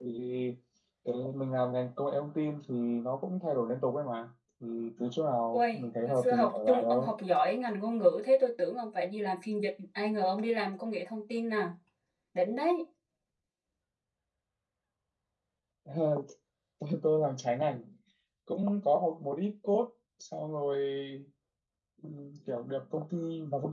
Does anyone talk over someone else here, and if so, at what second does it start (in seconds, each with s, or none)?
5.5 s